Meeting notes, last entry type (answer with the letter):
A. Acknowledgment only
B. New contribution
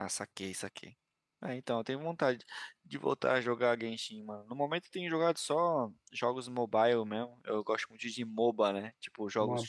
A